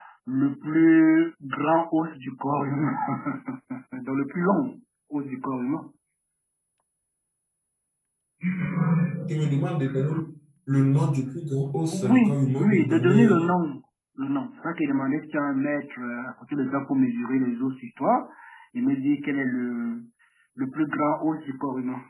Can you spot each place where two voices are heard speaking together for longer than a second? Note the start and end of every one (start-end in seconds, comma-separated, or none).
11.9-13.5